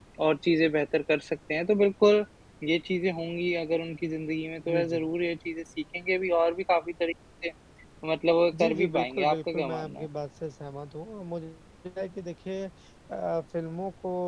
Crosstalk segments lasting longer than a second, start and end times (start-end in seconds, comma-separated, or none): 8.6-10.1